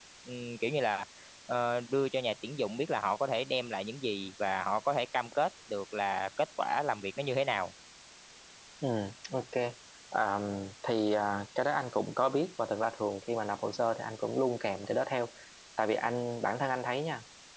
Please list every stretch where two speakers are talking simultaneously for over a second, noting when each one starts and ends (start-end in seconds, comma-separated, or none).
none